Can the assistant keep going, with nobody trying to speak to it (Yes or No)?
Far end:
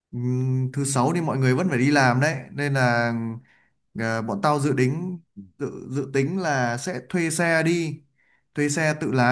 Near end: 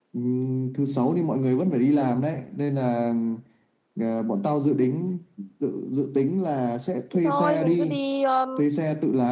No